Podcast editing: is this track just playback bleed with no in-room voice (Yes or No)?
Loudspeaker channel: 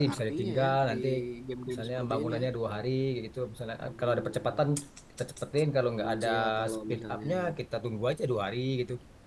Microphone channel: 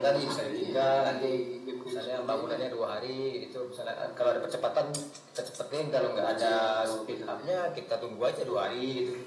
Yes